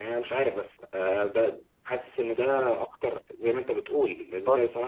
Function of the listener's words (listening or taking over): listening